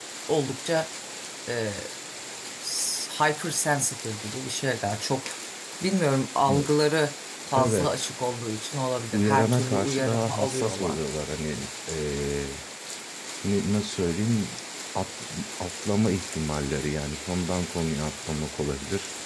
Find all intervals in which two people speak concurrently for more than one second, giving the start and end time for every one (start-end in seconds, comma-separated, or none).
9.1-11.0